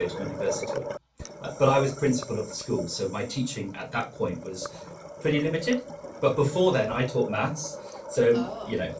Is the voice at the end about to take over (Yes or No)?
No